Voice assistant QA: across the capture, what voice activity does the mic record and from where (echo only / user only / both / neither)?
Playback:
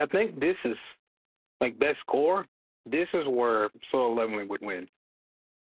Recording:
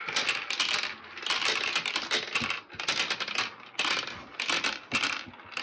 neither